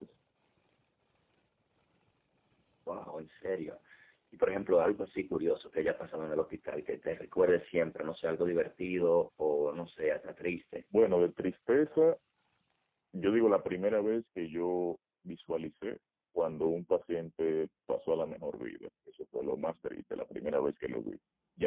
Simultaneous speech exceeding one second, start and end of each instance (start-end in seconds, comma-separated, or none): none